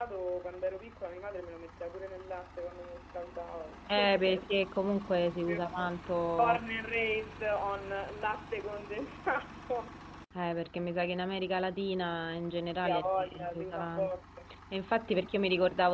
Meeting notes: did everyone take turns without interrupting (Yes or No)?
No